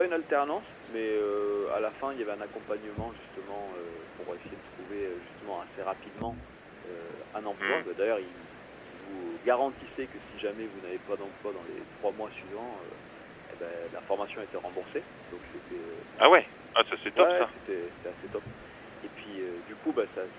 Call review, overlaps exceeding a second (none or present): none